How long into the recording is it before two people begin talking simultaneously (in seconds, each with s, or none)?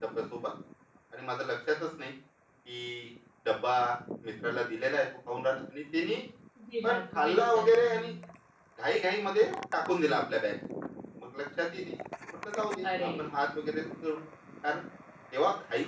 6.8 s